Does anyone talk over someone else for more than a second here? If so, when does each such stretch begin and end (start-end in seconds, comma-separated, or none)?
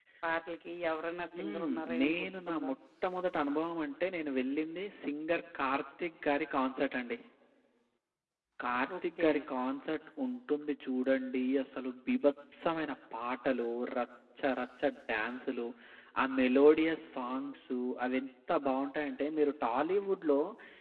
1.4-2.7